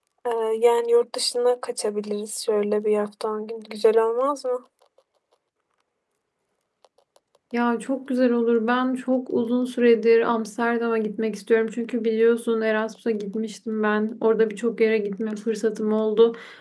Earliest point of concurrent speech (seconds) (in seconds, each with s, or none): none